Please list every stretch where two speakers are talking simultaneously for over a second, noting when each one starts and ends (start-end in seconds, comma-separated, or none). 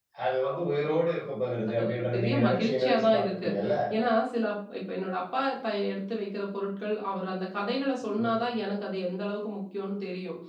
0.5-3.5